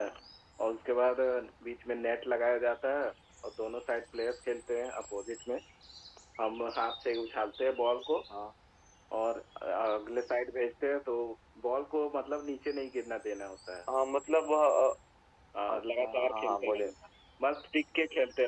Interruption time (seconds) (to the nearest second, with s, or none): 16 s